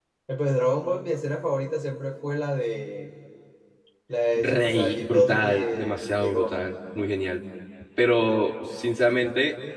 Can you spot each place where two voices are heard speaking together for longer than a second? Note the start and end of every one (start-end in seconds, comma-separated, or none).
4.3-6.7